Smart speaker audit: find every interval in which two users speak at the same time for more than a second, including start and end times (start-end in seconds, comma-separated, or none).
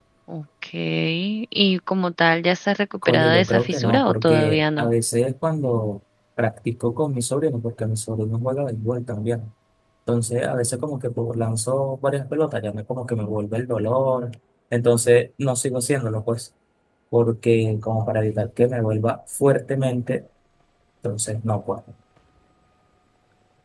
3.1-4.9